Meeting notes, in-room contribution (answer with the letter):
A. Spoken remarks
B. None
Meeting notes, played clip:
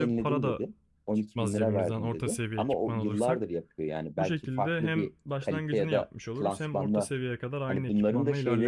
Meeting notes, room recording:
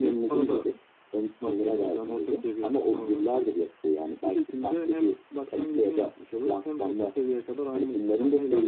B